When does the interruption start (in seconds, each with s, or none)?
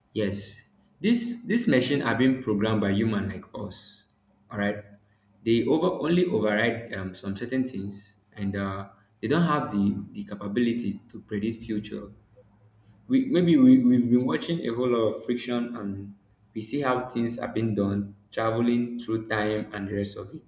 none